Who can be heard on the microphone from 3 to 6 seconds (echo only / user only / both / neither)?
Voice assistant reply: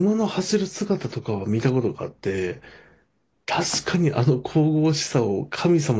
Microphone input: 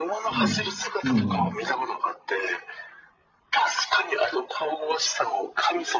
echo only